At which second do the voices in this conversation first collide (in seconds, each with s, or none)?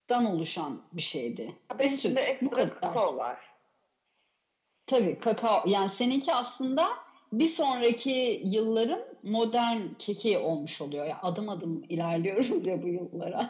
1.7 s